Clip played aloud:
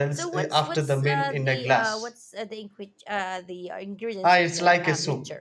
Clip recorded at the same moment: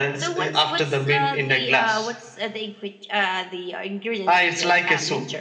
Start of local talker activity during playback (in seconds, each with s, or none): none